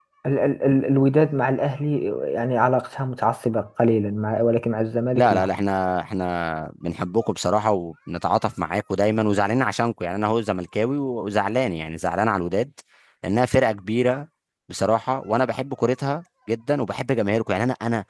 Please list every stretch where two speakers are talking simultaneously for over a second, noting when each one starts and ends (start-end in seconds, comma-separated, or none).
none